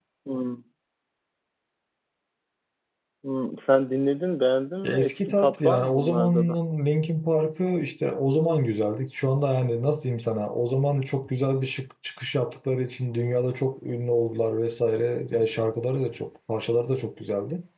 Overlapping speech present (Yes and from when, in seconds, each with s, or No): Yes, from 4.8 s